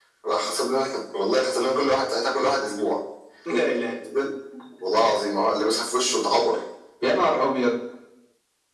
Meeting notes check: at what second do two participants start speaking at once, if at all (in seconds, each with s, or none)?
none